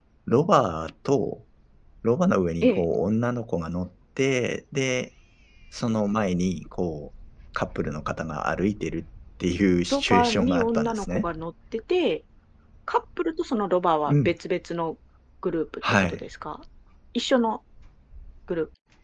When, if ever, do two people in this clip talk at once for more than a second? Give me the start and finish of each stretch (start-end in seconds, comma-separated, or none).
9.9-11.3